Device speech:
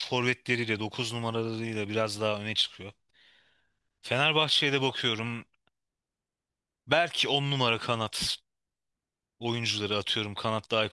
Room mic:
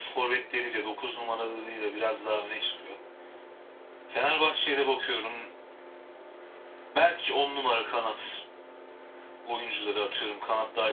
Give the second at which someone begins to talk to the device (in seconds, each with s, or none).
none